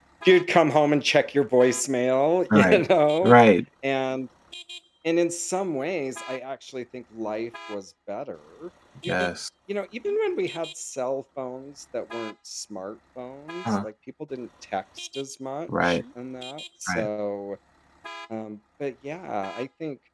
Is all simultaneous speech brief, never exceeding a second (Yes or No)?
Yes